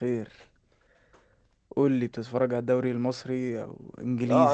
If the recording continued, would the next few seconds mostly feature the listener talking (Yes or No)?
Yes